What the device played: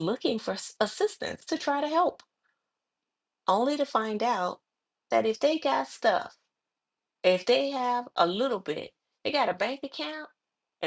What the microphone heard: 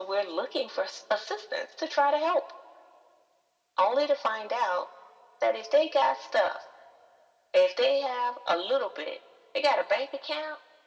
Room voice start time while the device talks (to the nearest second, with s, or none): none